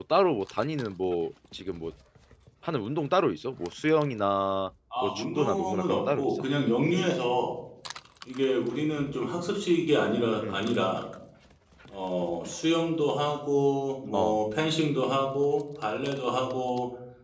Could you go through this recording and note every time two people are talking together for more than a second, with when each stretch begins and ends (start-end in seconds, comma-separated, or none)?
5.0-6.3